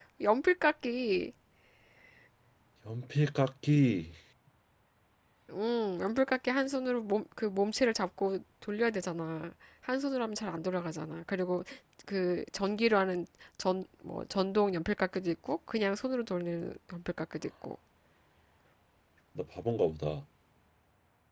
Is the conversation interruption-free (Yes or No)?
Yes